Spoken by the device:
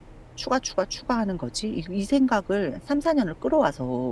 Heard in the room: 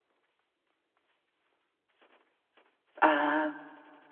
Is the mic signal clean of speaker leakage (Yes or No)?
Yes